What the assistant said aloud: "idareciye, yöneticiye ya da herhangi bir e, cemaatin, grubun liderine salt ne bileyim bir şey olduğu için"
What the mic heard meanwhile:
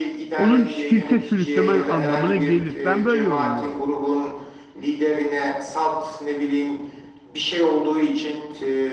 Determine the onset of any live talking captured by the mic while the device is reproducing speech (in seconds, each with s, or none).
0.3 s